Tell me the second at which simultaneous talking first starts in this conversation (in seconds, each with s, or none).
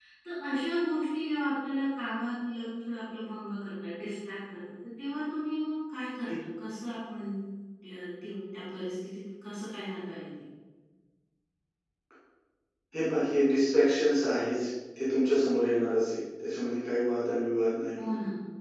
none